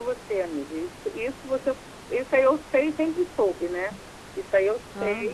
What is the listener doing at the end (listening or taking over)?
listening